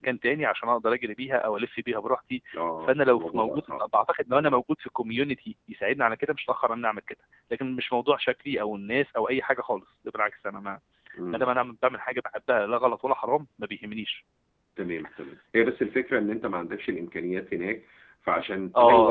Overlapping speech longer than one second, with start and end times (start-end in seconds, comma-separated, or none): 2.6-3.8